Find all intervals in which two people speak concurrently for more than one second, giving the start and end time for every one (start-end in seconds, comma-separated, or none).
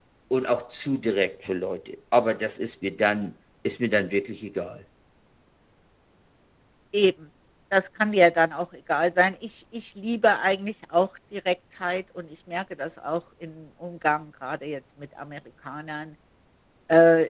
none